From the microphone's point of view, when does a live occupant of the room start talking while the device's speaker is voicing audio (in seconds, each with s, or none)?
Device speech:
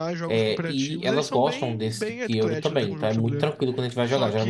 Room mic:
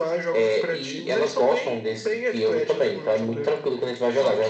none